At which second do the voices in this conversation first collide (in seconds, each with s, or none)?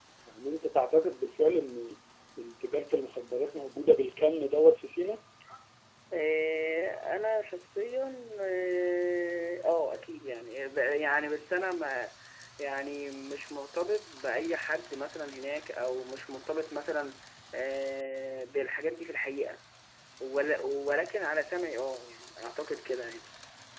none